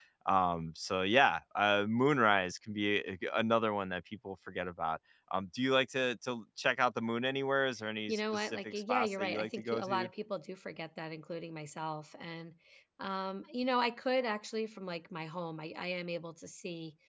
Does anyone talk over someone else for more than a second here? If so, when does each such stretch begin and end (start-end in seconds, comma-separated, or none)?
8.1-10.1